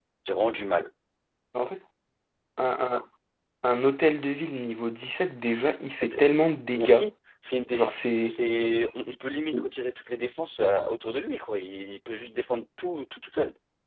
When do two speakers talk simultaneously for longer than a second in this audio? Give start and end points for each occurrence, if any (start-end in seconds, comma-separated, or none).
none